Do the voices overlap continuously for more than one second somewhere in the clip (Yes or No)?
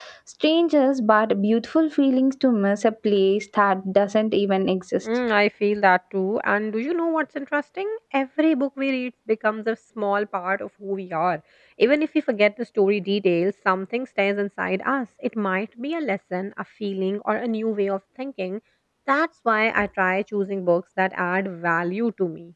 No